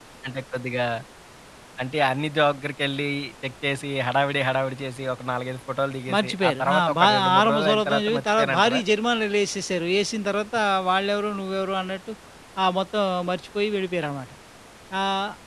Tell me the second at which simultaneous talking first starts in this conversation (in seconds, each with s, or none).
6.1 s